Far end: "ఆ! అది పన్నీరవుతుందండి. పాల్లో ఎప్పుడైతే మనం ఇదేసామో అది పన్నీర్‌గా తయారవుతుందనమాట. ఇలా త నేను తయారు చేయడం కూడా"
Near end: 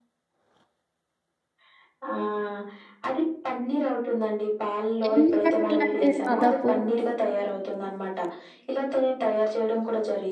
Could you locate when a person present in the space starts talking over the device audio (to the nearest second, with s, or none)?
5 s